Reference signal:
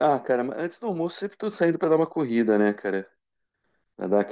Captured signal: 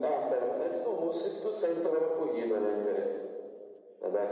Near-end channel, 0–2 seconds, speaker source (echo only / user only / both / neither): echo only